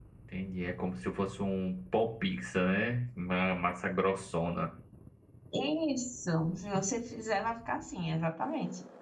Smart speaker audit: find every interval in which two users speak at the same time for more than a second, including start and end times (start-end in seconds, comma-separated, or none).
none